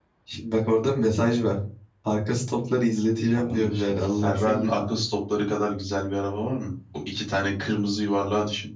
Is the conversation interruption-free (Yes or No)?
No